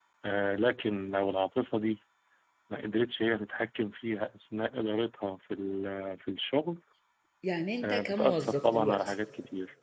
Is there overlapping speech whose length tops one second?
Yes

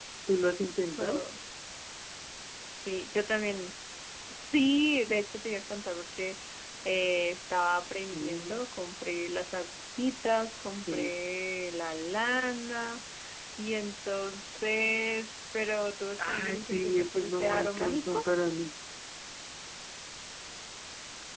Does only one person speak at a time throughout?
No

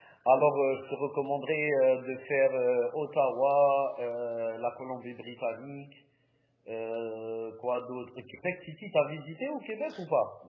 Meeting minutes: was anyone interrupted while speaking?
No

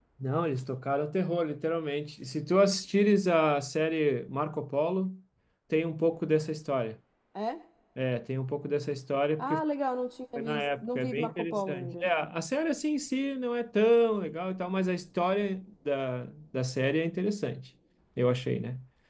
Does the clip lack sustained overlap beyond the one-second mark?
No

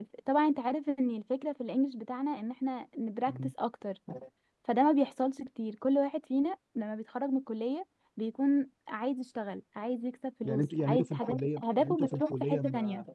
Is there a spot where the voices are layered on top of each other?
Yes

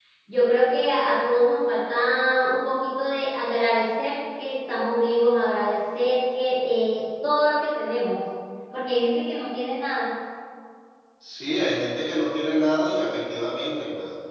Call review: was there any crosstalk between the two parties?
No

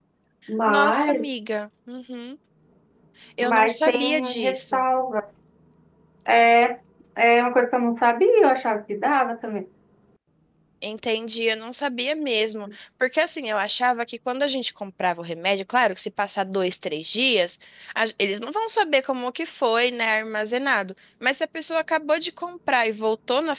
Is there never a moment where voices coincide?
No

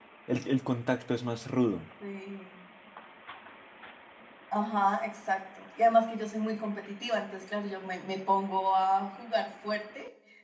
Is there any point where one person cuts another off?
No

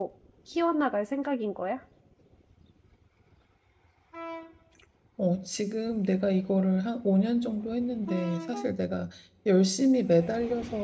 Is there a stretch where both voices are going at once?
No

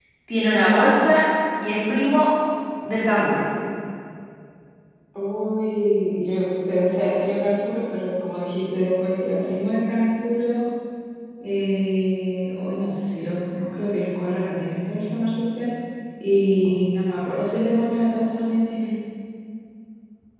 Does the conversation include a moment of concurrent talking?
No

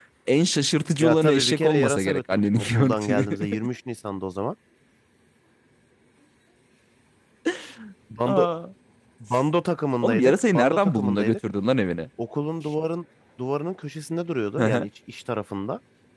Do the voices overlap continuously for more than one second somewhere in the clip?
Yes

